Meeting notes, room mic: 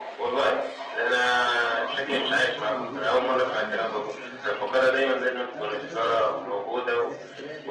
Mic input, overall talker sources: both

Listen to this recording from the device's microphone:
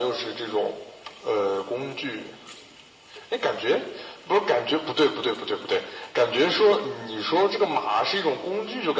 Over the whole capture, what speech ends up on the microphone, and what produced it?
echo only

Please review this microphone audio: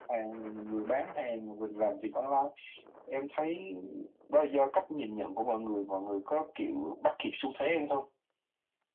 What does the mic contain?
echo only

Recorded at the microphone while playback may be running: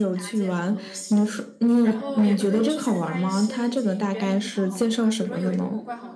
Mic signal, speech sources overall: both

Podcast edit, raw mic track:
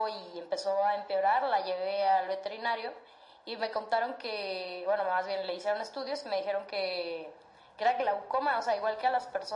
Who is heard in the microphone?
echo only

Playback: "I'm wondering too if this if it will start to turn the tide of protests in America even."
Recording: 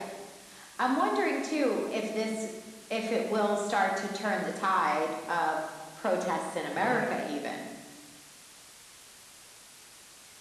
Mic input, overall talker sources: both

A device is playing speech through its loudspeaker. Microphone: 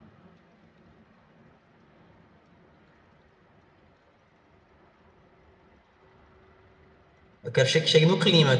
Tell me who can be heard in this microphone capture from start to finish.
user only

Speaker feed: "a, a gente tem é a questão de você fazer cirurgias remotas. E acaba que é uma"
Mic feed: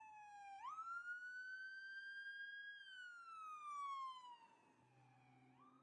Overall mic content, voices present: neither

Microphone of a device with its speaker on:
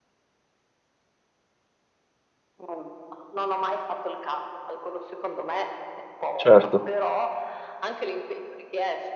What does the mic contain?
both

